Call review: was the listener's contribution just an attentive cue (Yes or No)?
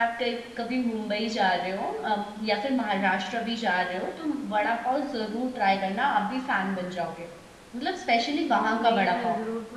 No